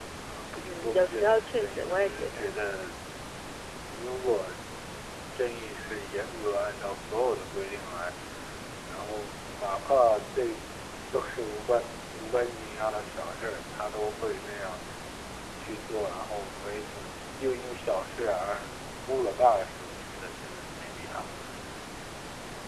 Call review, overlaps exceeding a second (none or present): present